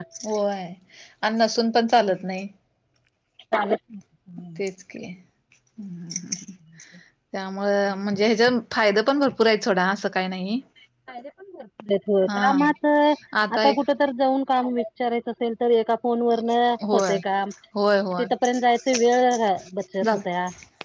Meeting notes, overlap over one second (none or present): none